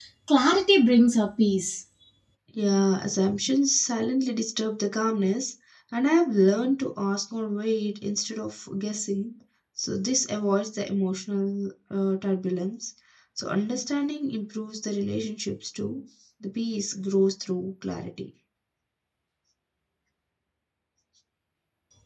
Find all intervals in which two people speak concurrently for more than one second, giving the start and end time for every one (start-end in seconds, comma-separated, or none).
none